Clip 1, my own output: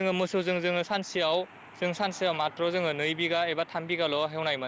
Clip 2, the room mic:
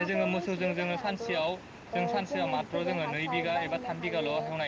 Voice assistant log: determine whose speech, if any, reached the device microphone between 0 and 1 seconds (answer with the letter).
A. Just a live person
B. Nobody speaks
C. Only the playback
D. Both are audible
D